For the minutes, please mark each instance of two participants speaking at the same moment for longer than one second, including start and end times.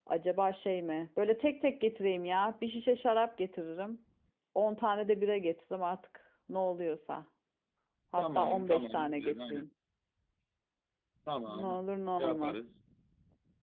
8.2-9.7

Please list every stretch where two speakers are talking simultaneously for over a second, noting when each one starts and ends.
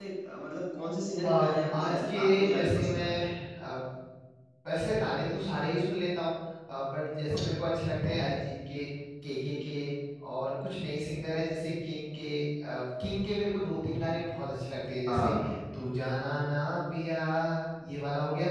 1.3-3.2

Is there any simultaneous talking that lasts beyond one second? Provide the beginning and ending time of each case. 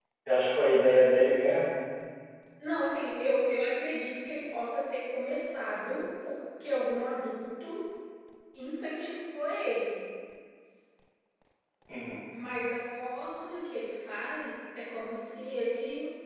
none

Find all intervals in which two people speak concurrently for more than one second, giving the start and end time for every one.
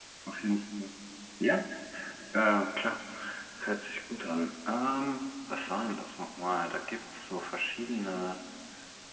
none

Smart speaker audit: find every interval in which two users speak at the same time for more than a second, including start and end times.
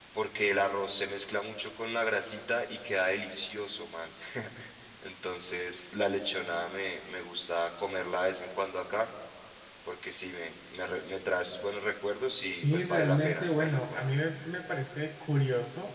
12.6-14.1

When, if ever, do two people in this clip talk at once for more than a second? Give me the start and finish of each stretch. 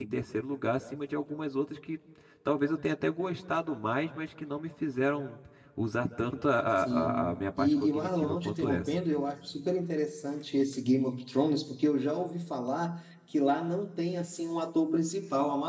6.8-8.9

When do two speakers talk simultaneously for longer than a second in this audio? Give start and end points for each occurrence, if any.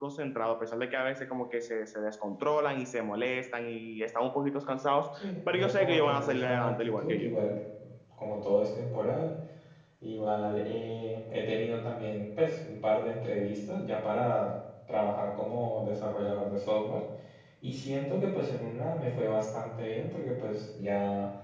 5.2-7.3

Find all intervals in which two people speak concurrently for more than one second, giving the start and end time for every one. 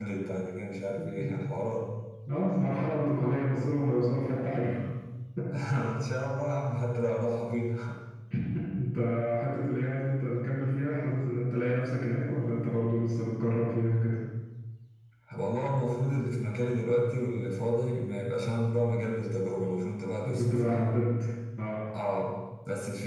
none

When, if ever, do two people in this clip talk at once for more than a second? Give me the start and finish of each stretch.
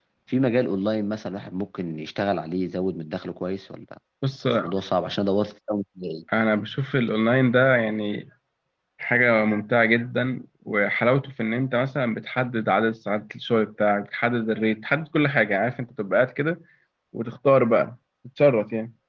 none

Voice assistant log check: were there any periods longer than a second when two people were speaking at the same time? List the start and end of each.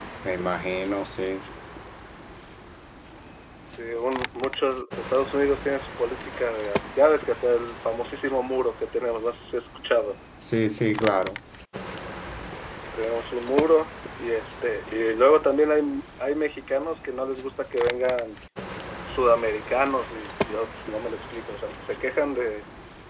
none

